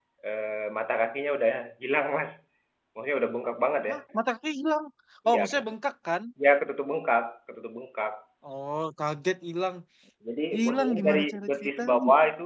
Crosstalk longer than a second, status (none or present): present